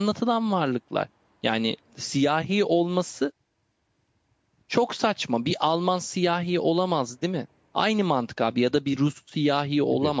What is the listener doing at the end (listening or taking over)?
listening